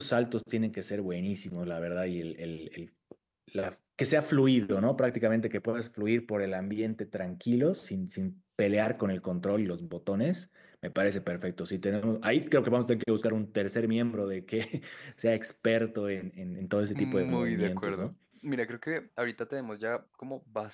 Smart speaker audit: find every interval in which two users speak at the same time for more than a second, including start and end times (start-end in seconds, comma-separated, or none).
16.9-18.1